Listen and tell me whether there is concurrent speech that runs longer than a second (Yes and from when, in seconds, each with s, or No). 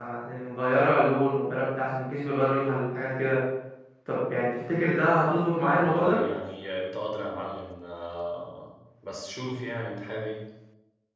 No